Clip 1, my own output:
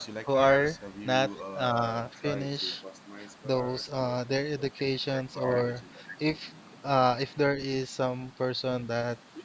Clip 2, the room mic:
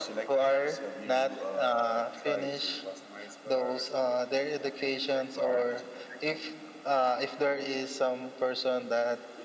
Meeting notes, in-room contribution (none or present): none